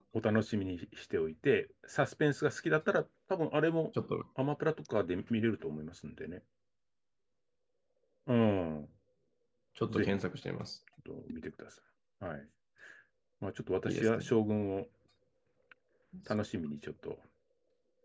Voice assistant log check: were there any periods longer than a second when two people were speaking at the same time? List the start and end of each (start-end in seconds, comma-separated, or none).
none